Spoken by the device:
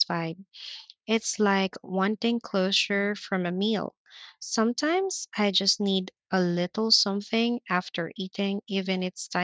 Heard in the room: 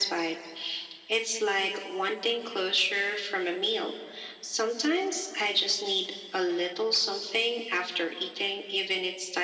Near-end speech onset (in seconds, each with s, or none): none